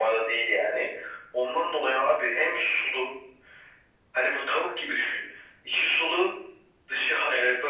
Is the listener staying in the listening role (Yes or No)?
Yes